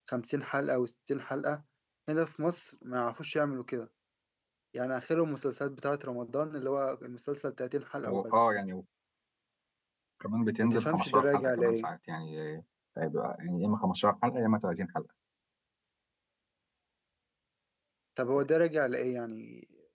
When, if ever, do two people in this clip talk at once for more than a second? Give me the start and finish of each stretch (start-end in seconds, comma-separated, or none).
10.6-11.9